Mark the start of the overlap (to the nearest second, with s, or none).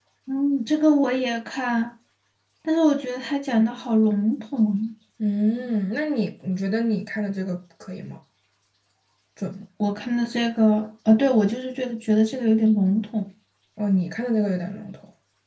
none